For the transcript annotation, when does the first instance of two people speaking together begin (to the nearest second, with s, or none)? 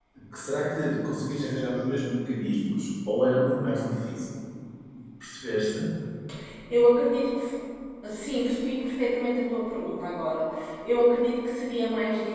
none